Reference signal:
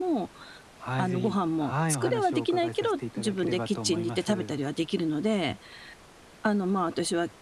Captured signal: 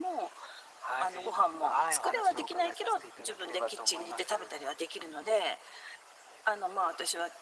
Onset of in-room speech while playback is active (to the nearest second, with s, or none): none